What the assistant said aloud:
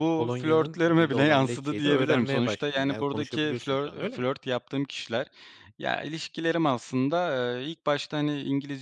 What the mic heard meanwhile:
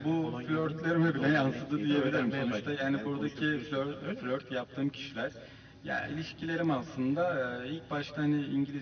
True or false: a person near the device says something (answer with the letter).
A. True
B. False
B